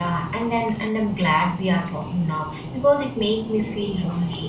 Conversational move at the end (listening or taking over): listening